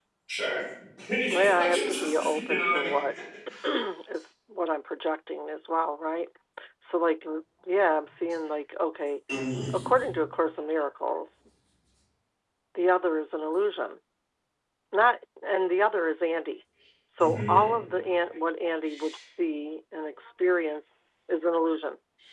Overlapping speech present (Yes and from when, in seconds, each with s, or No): Yes, from 1.3 s